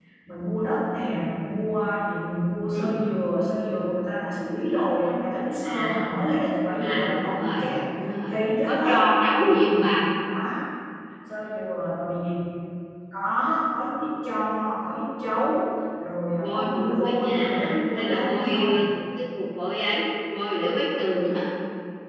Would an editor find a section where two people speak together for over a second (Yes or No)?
Yes